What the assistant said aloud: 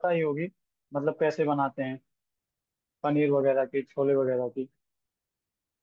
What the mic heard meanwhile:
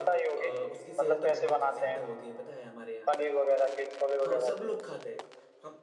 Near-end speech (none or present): present